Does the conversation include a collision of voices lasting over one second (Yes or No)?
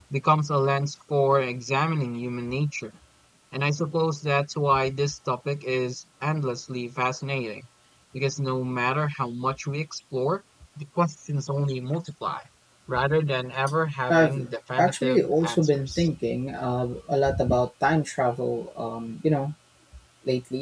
Yes